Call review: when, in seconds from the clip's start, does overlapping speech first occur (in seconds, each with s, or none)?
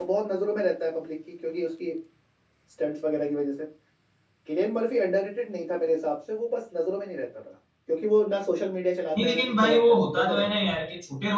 9.2 s